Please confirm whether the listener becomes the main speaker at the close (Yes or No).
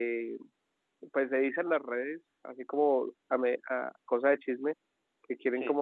No